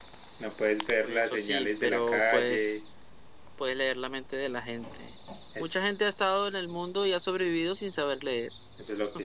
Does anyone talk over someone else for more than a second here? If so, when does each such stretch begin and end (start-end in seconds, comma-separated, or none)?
1.0-2.8